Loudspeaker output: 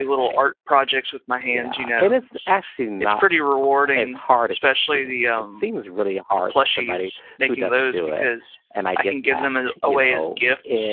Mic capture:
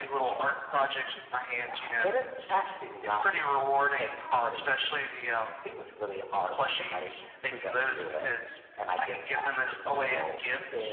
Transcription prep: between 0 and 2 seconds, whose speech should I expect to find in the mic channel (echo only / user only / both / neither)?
echo only